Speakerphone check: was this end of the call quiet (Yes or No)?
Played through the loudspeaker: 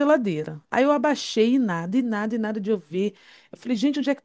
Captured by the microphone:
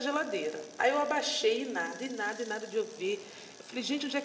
Yes